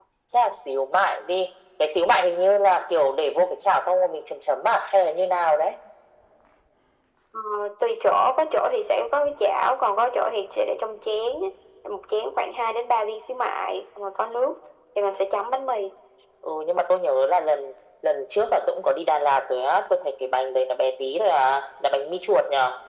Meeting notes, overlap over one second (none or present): none